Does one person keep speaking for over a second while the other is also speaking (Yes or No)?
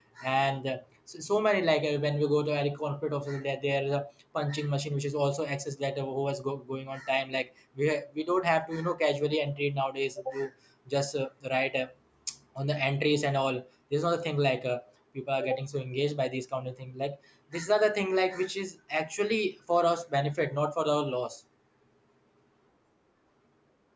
No